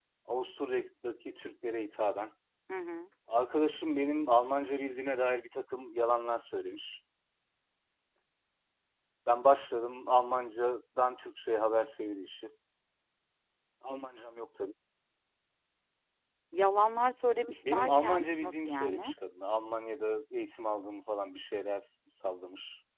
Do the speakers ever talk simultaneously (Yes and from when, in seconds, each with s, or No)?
Yes, from 17.6 s